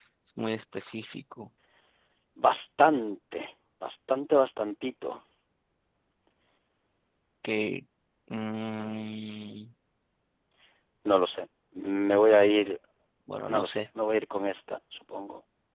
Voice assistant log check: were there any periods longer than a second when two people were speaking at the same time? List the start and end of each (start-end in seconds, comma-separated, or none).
none